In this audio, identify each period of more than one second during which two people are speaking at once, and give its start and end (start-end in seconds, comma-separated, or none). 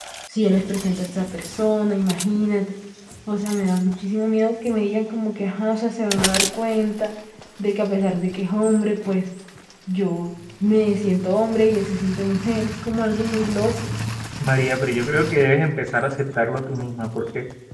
none